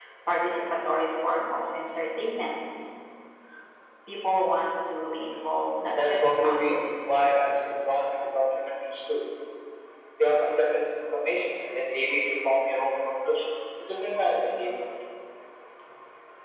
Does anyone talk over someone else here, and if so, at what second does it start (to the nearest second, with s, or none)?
6 s